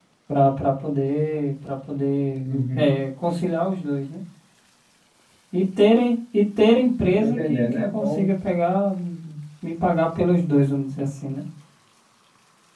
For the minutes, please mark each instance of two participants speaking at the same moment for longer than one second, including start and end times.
7.1-8.3

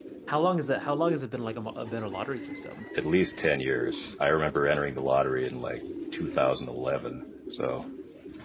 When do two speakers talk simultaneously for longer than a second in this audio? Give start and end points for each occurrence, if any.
none

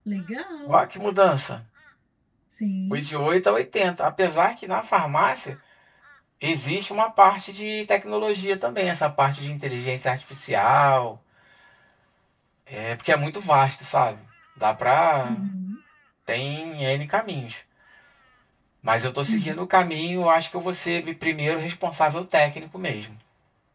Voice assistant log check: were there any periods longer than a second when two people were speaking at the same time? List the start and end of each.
none

